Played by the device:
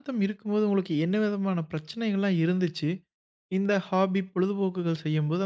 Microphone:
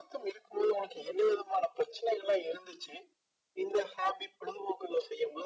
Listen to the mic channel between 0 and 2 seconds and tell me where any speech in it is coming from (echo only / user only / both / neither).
echo only